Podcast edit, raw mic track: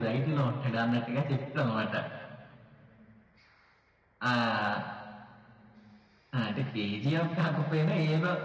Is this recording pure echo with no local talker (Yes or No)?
Yes